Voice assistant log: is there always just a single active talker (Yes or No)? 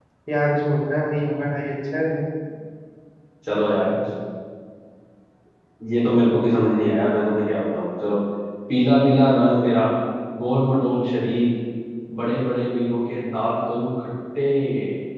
Yes